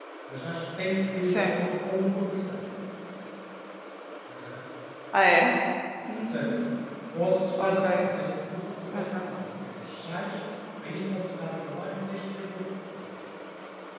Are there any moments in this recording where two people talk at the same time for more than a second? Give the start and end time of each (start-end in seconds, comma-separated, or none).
none